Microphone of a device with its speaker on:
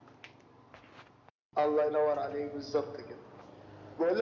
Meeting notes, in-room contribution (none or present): none